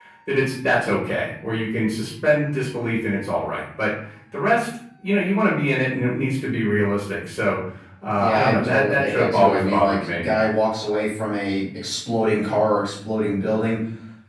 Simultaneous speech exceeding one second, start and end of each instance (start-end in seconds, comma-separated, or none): 8.2-10.1